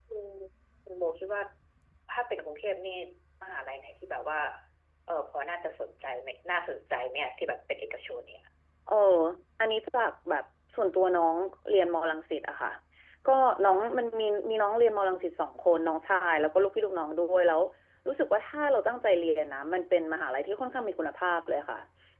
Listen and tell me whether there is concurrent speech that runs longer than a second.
No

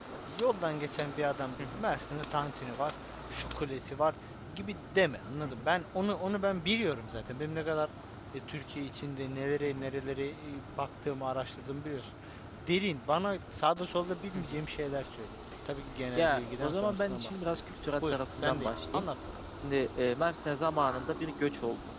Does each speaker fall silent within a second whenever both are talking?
No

